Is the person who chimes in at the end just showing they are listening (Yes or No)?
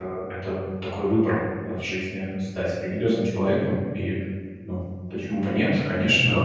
No